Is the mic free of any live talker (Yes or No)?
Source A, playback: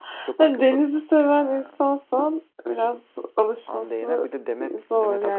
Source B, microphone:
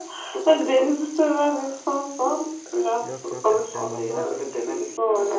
No